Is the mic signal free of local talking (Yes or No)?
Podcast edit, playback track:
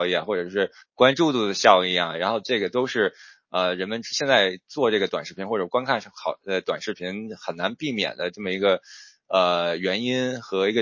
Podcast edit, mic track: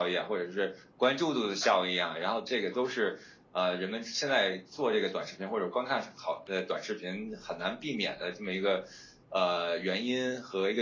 Yes